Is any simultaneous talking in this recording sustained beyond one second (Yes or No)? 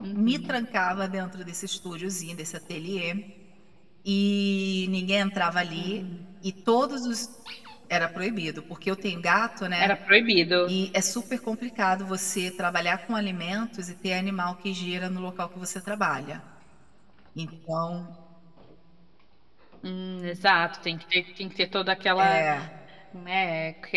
No